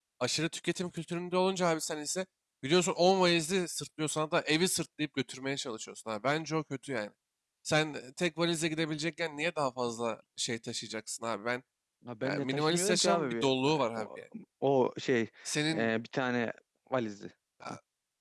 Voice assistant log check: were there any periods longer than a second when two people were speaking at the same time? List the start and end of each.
12.2-14.1

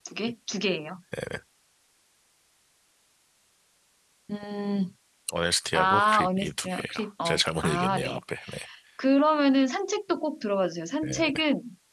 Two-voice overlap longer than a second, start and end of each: 5.7-8.2

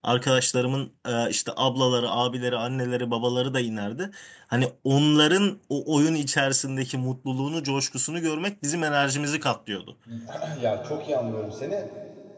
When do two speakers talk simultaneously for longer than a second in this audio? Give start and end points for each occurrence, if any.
none

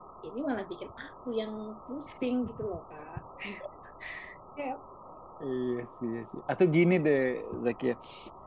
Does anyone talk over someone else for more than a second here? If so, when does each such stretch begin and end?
none

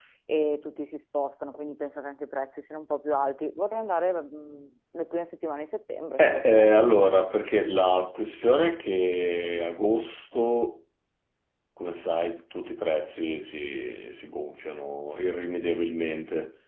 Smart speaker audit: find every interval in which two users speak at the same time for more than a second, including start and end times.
none

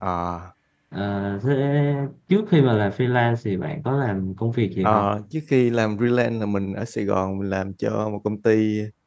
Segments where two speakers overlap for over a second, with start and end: none

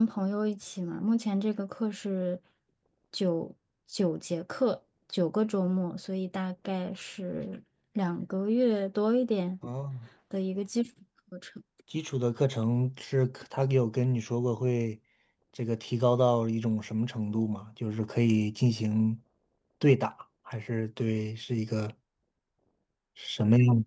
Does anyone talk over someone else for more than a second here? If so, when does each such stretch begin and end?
none

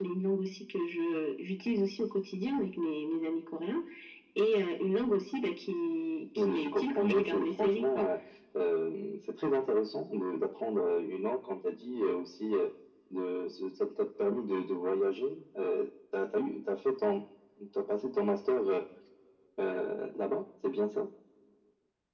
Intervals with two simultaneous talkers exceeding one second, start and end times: 6.3-8.1

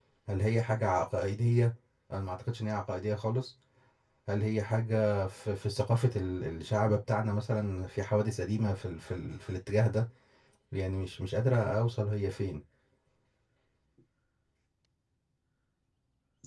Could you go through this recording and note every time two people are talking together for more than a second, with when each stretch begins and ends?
none

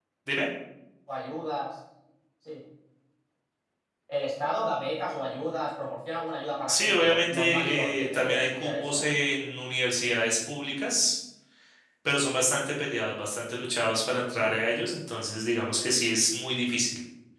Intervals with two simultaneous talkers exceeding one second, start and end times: 6.7-9.0

